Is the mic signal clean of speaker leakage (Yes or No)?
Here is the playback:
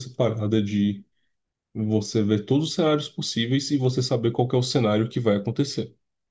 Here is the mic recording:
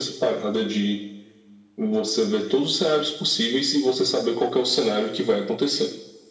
No